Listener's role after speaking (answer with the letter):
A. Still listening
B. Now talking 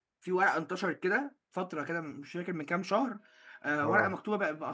A